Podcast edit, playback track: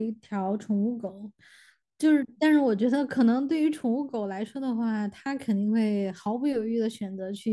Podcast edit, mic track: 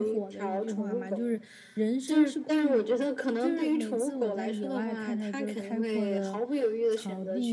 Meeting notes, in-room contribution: present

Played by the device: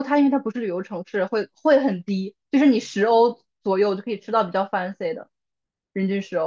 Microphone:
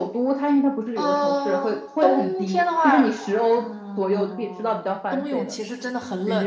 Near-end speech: present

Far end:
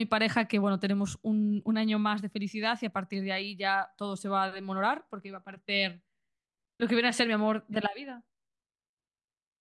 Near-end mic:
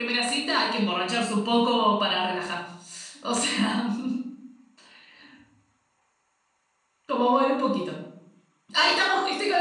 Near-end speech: present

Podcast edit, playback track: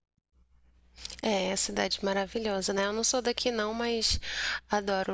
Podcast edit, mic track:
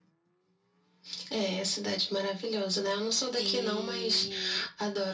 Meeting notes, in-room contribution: present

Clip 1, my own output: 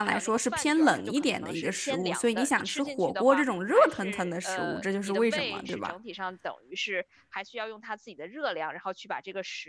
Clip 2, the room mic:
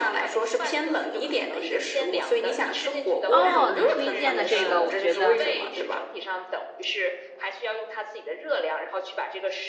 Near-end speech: present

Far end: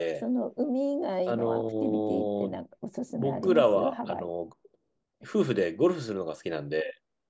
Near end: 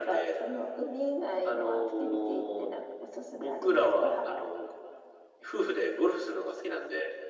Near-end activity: none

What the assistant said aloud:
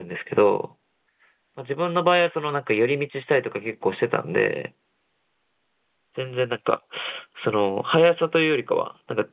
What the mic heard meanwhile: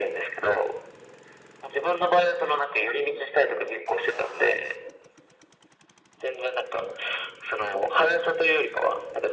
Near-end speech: none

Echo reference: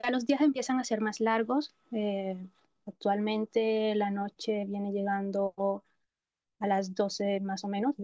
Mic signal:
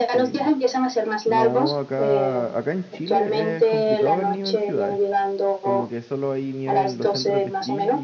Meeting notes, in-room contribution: present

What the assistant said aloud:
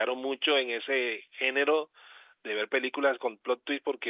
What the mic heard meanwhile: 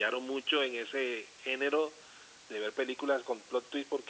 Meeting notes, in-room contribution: none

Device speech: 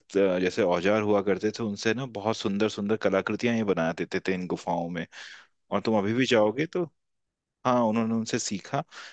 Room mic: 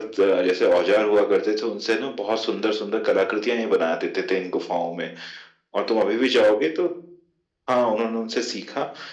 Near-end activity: none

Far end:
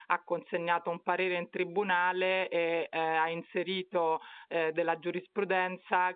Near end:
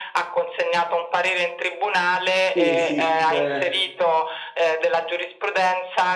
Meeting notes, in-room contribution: present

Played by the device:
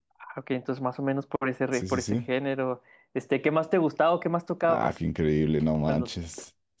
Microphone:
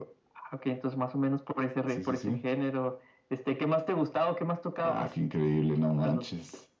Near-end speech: none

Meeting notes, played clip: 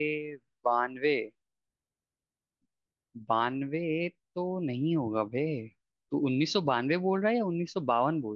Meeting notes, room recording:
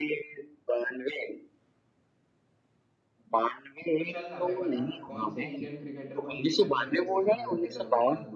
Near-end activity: present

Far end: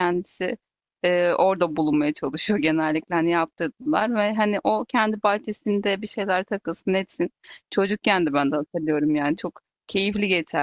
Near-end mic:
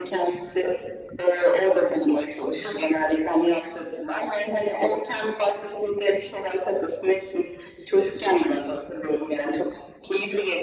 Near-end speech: none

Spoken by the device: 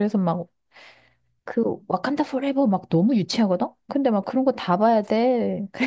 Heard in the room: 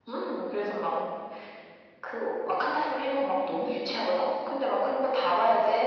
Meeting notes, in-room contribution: none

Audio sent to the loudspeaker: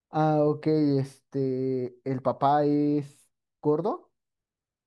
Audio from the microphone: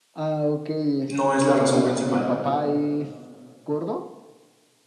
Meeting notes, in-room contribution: present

